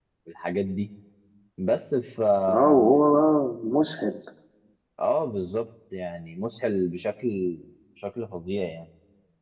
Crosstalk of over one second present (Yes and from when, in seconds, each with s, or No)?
No